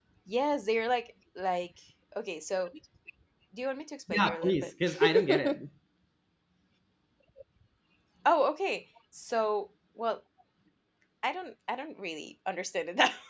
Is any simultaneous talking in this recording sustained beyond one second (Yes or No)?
Yes